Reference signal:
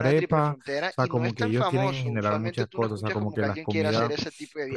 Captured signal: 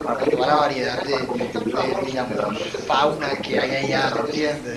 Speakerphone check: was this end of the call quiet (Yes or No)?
No